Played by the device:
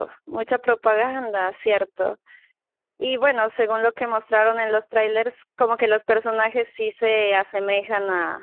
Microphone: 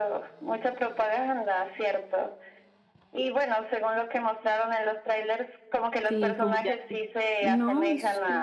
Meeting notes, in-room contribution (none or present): present